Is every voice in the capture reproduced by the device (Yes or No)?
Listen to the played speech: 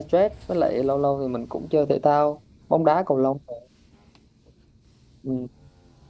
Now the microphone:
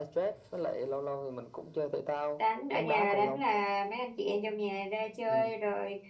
No